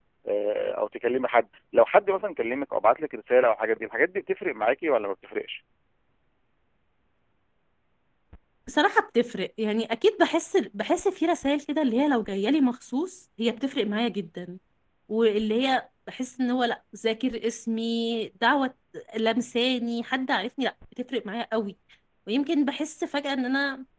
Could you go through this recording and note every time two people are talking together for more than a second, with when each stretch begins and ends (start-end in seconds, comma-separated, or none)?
none